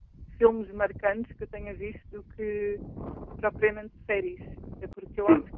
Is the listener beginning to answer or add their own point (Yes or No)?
No